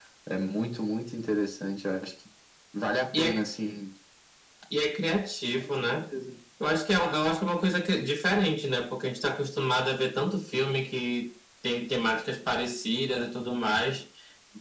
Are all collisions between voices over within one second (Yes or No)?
Yes